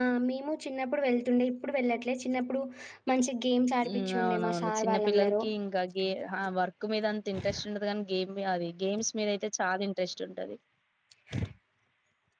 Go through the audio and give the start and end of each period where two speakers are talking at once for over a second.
3.9-5.3

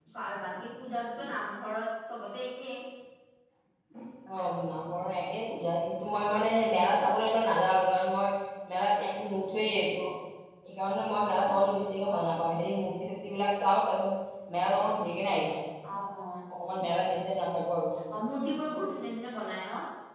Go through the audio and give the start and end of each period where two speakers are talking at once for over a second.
none

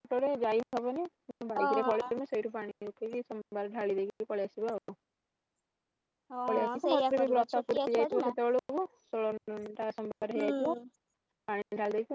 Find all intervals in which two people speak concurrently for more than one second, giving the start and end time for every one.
6.5-8.3

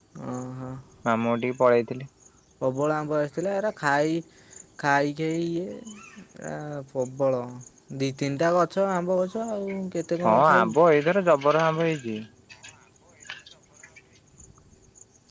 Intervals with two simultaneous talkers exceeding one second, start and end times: none

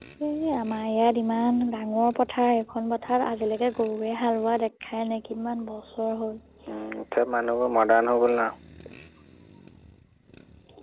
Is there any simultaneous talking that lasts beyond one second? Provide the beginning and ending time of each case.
none

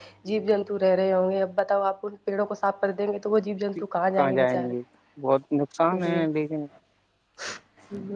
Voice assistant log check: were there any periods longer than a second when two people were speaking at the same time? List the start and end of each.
none

